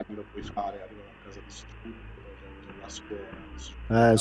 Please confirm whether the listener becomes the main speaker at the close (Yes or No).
Yes